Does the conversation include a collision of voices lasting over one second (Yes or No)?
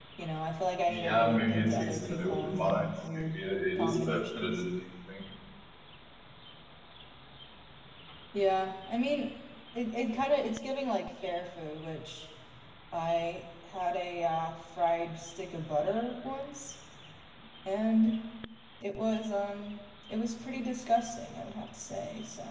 Yes